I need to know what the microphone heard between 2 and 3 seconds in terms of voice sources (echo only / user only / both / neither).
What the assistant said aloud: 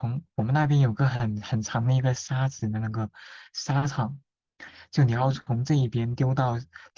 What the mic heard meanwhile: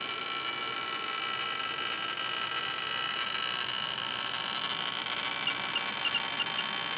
neither